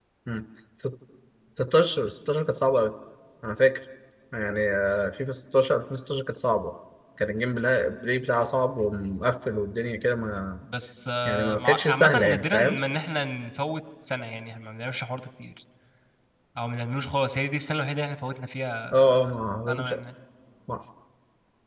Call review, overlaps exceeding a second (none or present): present